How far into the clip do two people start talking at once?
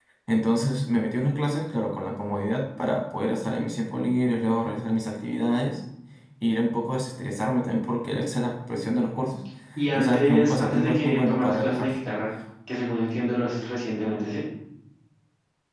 9.9 s

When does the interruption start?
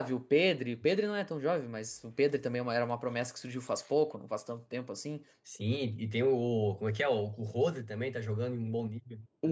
none

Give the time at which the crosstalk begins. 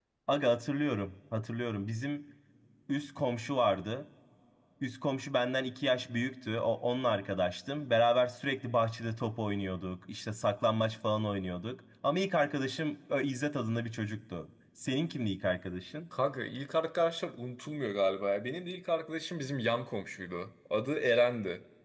none

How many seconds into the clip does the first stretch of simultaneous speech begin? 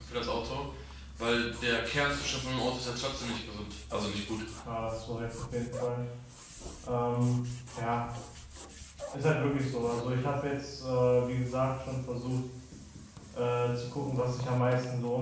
none

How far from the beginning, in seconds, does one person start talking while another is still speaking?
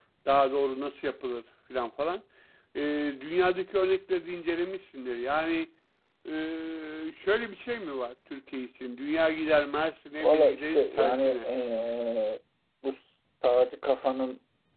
10.2 s

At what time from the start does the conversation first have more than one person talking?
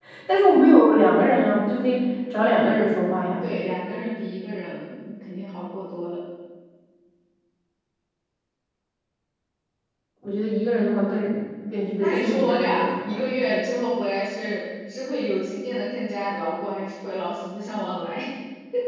12.0 s

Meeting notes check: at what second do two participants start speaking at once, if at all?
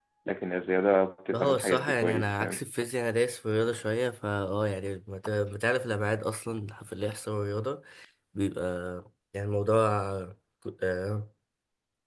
1.3 s

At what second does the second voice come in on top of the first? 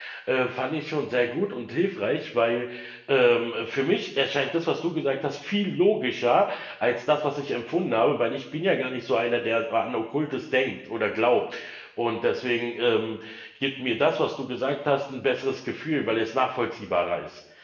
none

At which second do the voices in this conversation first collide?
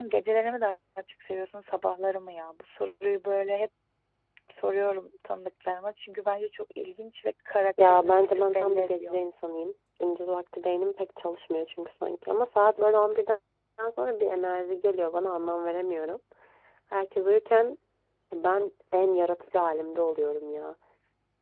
7.8 s

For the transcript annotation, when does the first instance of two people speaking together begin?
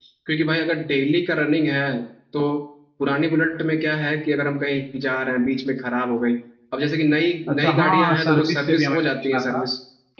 7.5 s

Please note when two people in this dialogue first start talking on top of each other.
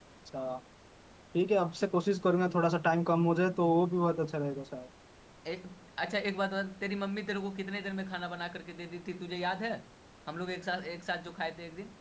none

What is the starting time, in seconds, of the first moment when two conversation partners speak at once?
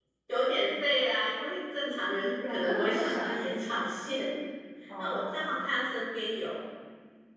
2.5 s

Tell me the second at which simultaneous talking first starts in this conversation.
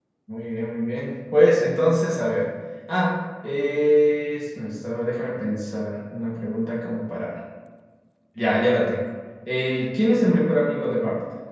none

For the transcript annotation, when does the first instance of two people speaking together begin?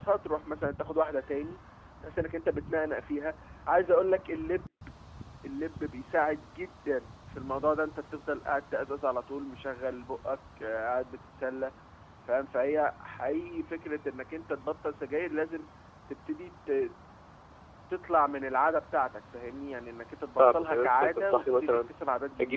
20.4 s

